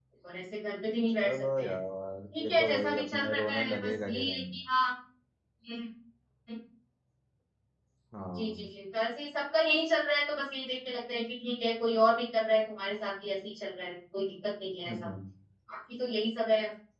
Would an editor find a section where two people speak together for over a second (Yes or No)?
Yes